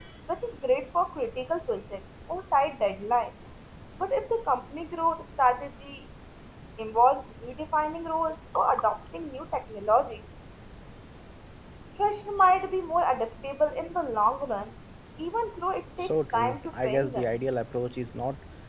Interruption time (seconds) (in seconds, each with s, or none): 16.0 s